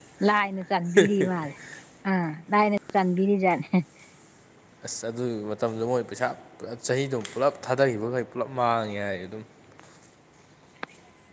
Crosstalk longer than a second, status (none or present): none